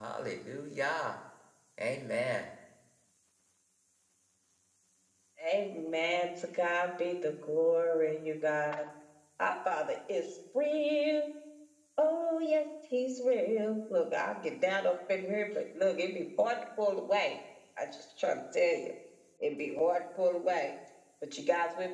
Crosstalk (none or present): none